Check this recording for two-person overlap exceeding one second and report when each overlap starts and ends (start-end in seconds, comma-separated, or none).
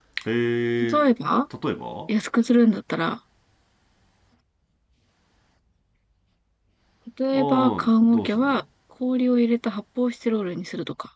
7.3-8.6